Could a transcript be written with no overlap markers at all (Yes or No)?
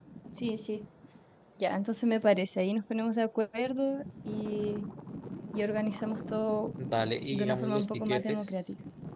No